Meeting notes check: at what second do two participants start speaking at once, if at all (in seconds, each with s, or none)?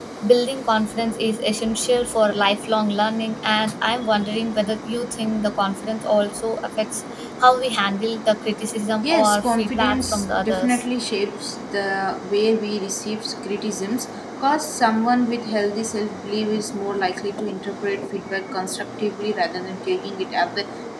9.0 s